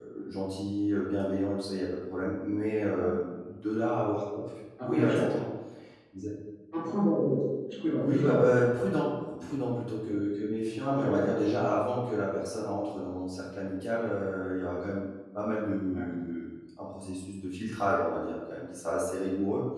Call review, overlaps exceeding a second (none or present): none